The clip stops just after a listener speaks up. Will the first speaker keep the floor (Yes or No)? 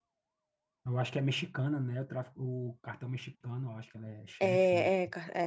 No